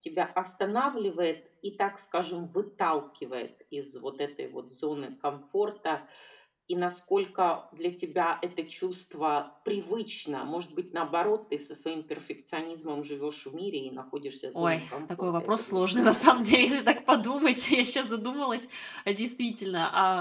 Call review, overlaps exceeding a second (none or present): present